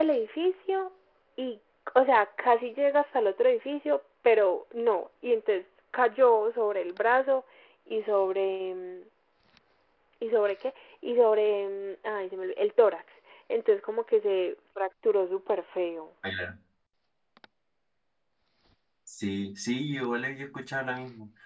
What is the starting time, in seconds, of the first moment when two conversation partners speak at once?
none

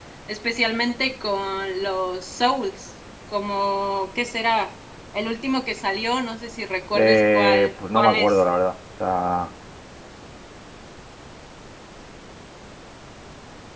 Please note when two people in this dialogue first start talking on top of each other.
6.9 s

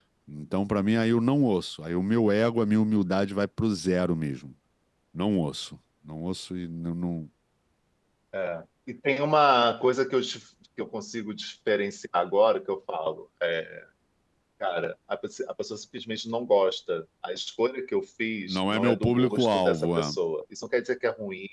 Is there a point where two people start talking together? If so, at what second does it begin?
18.5 s

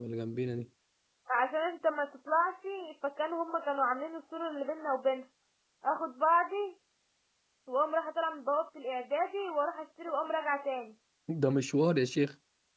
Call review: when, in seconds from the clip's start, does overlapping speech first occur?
none

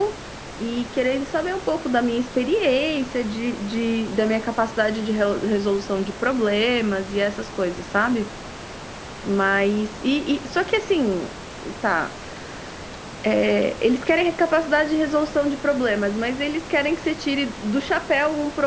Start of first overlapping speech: none

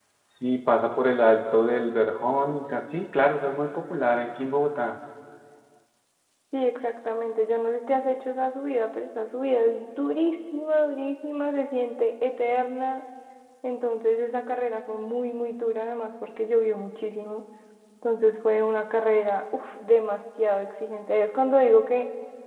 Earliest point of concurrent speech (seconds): none

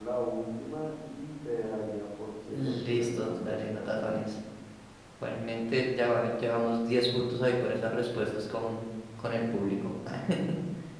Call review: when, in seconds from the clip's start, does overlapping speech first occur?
2.5 s

